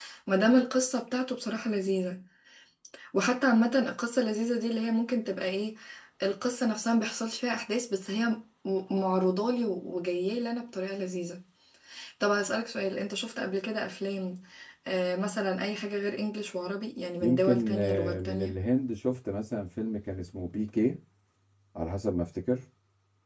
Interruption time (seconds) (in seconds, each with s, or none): 17.2 s